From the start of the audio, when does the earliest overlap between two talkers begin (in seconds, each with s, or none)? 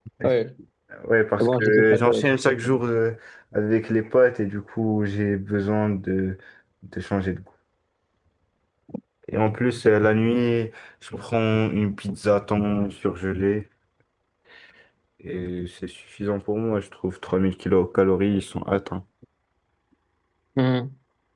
1.4 s